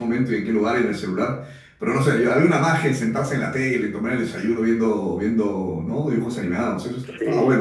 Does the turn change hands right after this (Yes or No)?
Yes